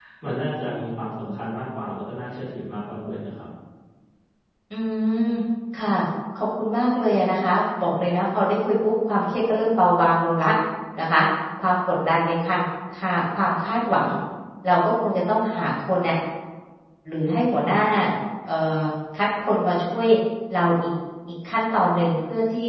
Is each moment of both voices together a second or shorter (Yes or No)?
Yes